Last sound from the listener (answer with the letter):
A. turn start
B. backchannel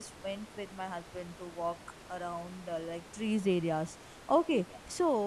B